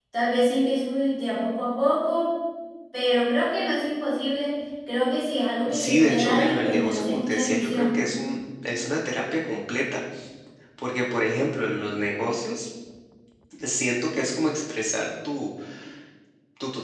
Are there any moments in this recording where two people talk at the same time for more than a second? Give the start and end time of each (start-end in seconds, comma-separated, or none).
5.7-8.0